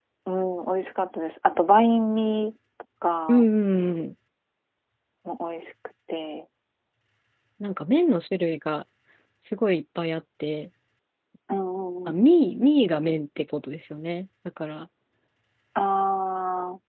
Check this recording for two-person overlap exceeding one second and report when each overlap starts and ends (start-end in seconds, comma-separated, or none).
none